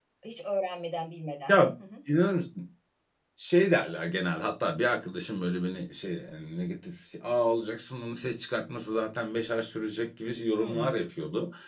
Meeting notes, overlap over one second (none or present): none